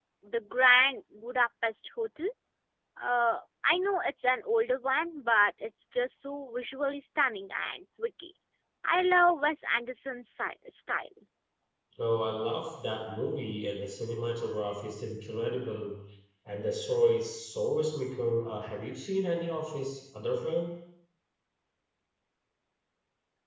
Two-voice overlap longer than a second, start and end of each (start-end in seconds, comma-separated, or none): none